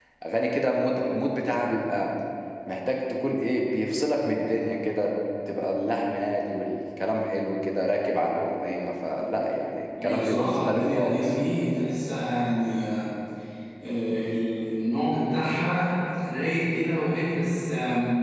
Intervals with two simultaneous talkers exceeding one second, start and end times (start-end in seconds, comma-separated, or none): 10.0-11.3